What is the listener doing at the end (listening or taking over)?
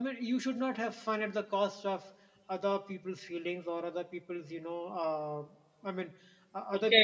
taking over